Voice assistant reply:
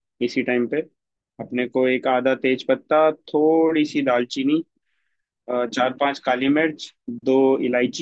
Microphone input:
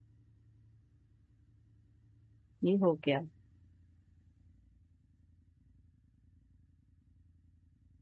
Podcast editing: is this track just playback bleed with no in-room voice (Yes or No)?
No